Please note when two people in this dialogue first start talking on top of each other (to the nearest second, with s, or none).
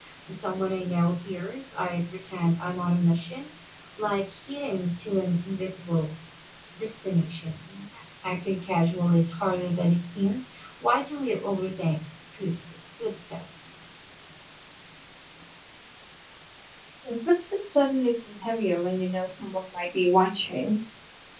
none